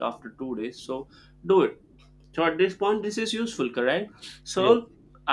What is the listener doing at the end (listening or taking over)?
listening